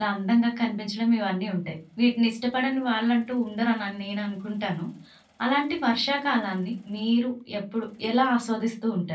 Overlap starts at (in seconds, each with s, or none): none